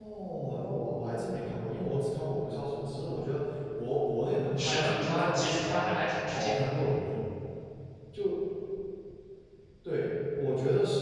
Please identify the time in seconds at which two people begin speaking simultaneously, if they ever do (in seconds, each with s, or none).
4.6 s